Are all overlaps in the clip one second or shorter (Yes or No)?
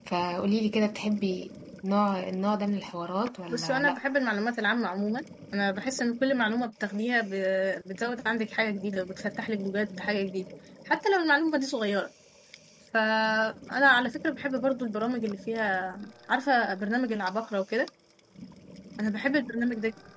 Yes